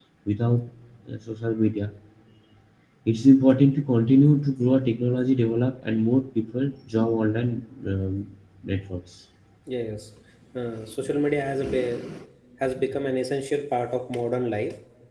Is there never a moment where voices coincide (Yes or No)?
Yes